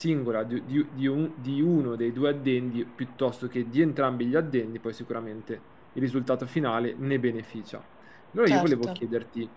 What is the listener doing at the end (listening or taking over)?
listening